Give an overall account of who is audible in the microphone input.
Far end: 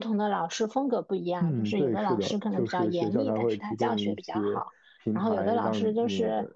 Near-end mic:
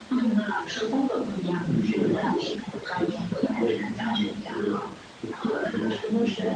echo only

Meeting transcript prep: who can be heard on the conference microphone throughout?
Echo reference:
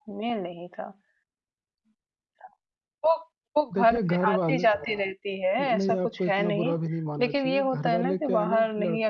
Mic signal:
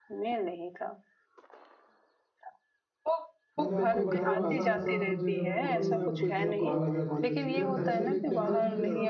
both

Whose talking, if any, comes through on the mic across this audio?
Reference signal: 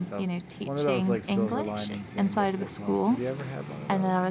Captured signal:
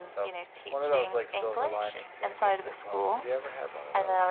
echo only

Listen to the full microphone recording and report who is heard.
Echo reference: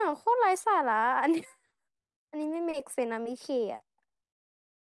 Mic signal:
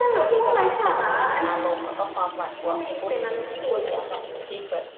both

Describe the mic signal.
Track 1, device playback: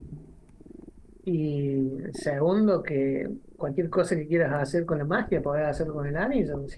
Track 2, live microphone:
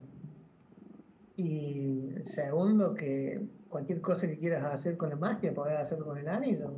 echo only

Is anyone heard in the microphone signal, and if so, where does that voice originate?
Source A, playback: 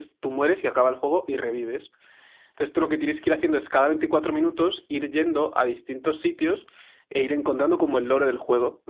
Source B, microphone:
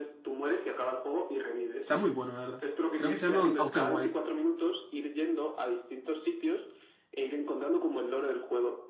both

